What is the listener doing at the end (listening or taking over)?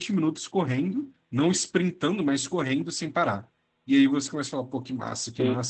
listening